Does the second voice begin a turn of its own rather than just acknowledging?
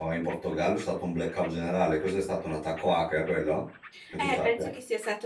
Yes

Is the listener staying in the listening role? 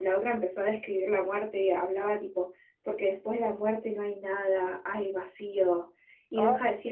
Yes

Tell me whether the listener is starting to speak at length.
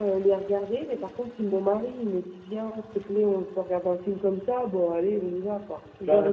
Yes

